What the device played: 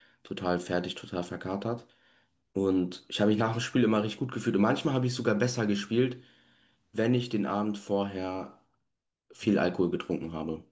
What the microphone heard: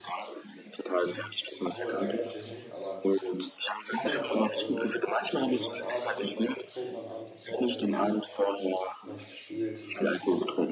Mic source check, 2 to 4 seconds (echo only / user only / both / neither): both